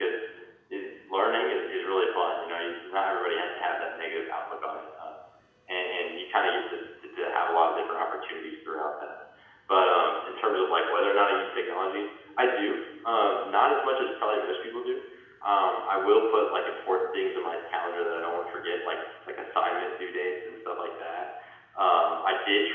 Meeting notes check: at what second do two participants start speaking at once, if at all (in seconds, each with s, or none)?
none